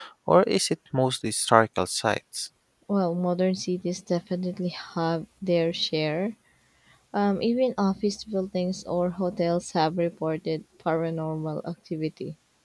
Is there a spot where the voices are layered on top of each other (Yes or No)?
No